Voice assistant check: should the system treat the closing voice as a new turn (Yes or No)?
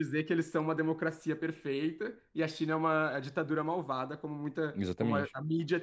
No